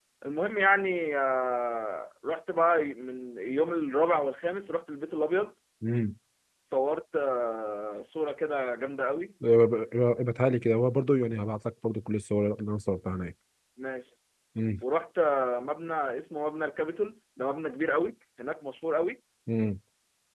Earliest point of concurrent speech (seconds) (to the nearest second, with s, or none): none